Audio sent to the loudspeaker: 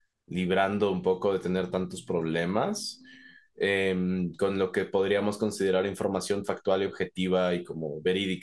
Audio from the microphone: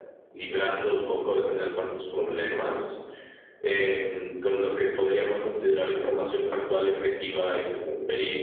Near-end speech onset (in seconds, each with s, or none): none